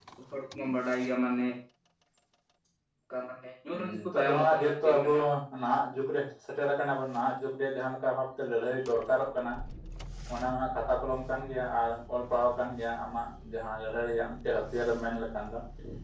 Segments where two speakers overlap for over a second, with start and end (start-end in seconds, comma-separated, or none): 3.7-5.1